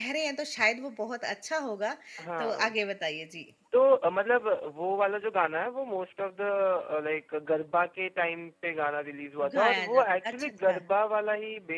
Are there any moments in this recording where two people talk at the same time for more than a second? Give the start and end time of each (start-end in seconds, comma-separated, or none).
9.5-10.8